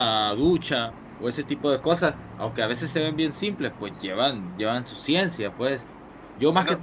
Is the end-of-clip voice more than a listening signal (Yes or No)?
No